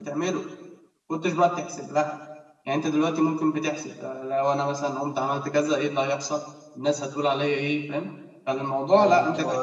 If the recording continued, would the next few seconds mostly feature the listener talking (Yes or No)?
Yes